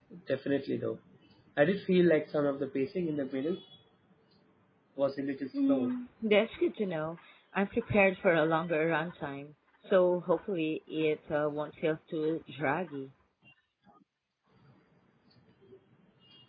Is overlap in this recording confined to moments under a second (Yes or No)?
Yes